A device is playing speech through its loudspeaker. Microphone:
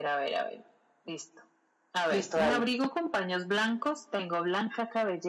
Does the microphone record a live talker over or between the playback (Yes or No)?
Yes